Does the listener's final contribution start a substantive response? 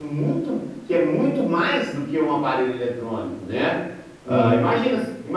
No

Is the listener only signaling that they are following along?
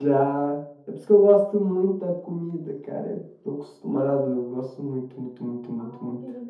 No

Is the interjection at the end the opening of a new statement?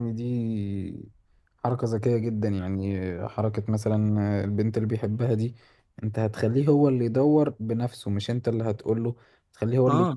No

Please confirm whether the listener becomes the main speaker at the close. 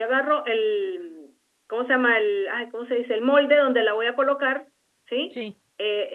No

